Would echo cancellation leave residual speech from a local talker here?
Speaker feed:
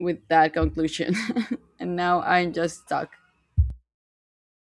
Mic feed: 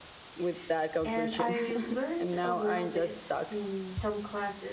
Yes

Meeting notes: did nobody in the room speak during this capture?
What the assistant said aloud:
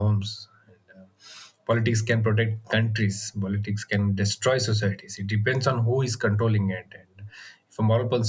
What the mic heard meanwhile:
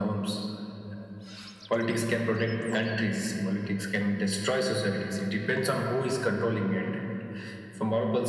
Yes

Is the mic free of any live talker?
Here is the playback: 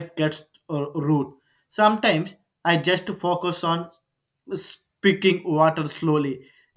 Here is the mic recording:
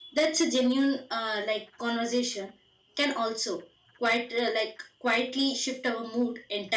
No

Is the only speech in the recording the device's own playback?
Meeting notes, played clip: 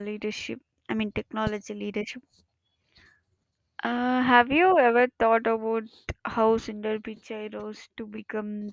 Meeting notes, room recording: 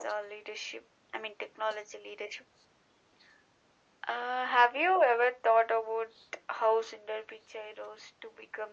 Yes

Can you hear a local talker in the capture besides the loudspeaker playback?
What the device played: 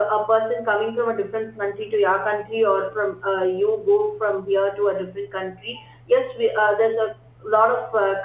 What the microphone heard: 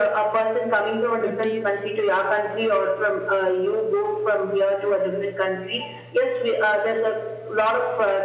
Yes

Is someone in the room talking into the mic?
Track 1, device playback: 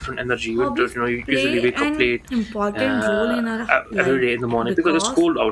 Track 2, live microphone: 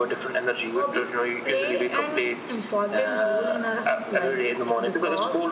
No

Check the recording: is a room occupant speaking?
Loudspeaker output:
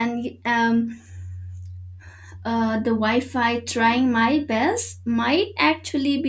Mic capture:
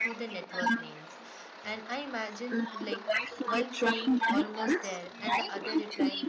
Yes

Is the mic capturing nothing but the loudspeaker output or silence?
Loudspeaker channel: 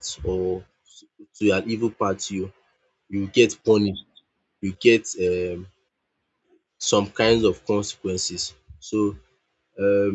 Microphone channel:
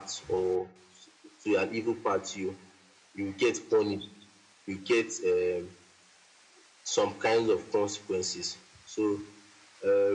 Yes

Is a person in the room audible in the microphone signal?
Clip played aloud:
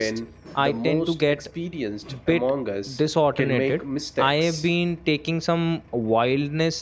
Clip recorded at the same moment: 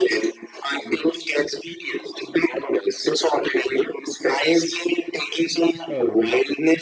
Yes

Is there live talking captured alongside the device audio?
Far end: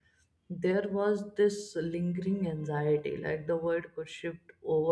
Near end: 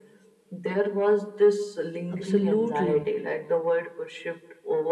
Yes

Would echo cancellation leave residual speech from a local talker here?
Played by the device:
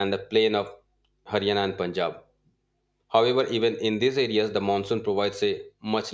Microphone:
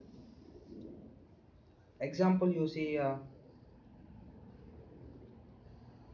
Yes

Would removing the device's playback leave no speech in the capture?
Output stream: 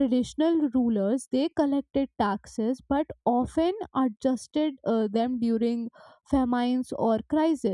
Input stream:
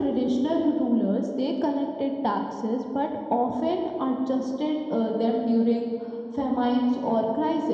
Yes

